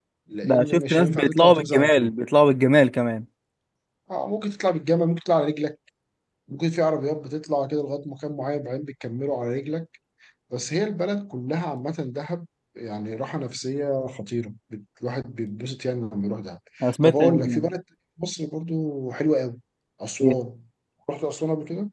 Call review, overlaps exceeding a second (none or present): present